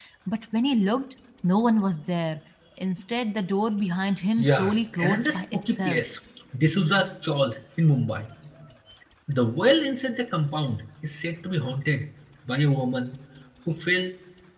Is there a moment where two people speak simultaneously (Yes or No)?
Yes